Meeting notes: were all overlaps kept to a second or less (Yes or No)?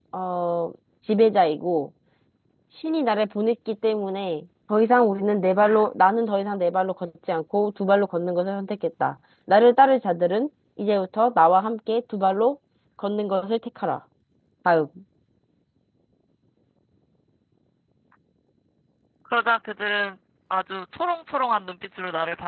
Yes